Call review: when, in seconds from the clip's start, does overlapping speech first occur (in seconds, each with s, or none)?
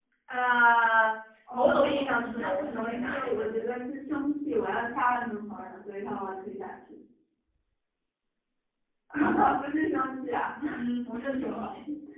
1.5 s